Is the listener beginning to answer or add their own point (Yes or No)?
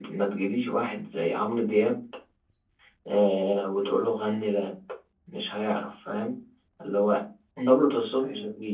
No